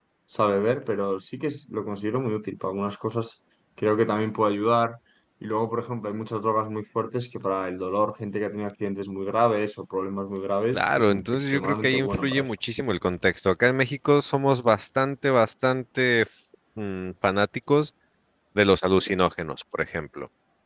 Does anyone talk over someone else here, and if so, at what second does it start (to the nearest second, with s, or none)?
11 s